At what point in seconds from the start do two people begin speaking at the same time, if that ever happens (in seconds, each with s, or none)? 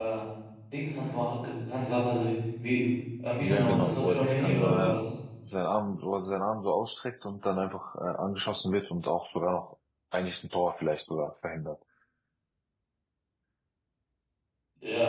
3.4 s